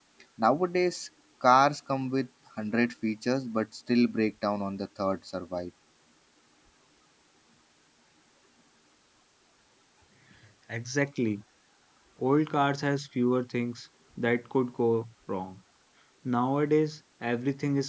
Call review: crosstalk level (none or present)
none